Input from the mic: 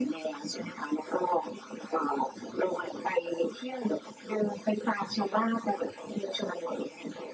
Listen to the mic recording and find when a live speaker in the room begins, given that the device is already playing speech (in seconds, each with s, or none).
none